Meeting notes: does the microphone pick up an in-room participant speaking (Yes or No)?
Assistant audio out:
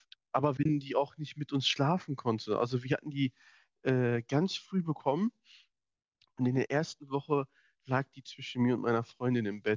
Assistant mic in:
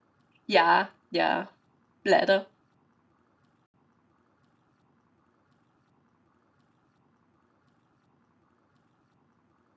Yes